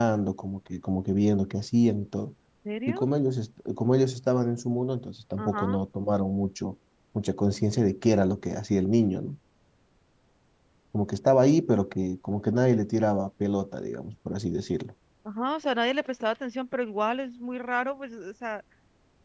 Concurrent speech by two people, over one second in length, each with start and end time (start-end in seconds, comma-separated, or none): none